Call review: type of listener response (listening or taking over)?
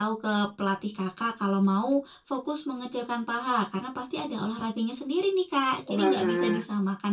listening